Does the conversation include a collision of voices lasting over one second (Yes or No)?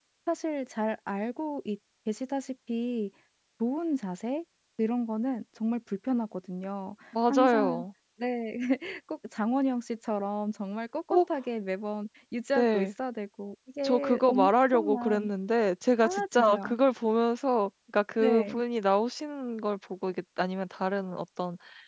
Yes